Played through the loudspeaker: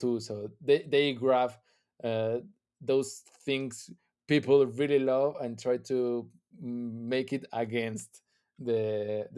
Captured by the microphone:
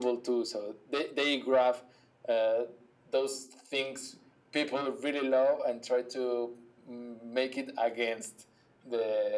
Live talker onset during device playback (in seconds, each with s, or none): none